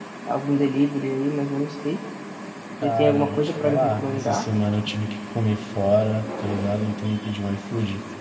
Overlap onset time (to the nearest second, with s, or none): 3 s